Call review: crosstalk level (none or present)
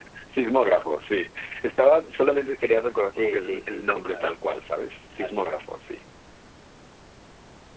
present